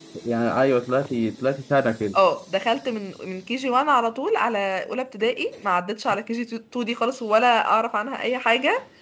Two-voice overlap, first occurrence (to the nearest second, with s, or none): none